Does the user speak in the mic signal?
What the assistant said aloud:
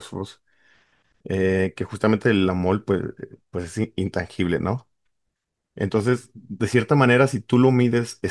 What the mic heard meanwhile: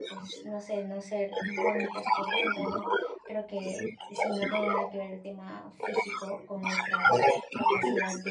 Yes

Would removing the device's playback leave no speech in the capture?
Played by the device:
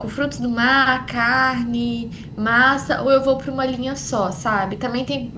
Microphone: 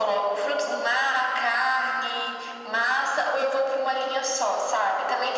Yes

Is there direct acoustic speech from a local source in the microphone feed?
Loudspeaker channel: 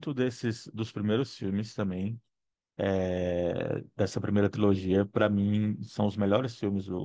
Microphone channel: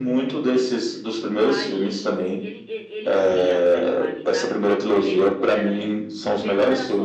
Yes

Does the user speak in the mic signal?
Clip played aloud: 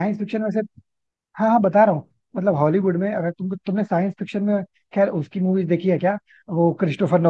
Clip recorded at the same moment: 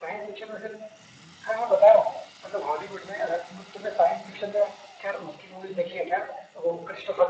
No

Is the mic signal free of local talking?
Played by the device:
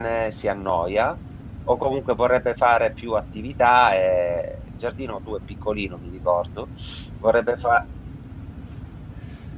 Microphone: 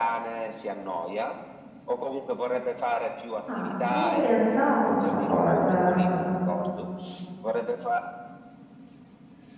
No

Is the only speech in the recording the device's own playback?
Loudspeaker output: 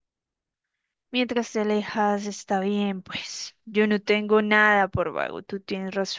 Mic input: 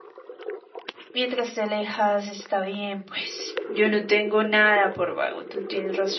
Yes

